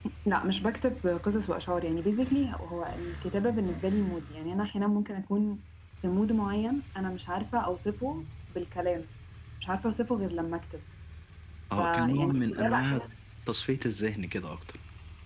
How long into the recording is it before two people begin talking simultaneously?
12 s

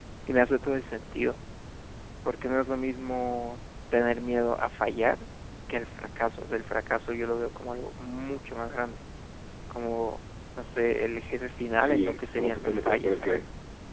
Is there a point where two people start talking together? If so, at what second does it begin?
12 s

